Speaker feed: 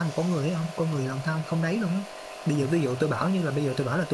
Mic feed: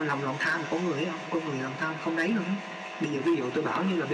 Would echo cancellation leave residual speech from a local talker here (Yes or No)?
No